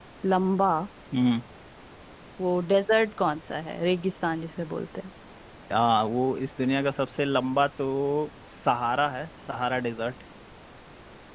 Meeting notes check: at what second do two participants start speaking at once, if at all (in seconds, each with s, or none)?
none